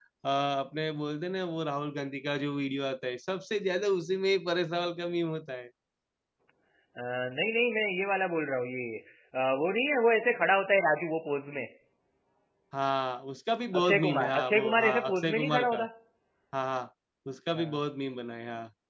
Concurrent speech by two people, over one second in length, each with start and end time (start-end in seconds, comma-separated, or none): 13.8-15.8